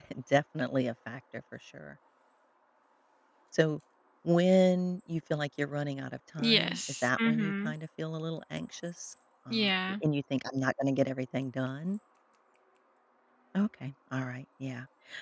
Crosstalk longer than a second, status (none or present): present